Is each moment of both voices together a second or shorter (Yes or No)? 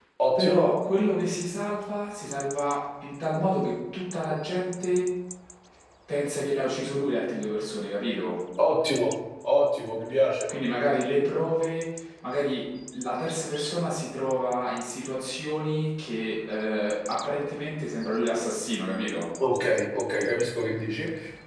Yes